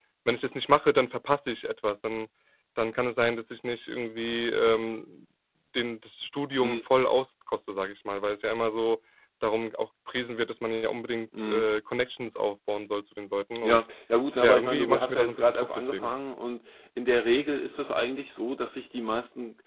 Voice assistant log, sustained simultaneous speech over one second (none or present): present